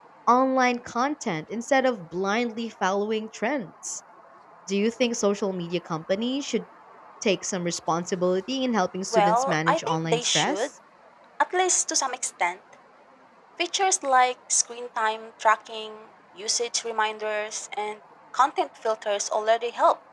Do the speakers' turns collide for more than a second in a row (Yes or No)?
Yes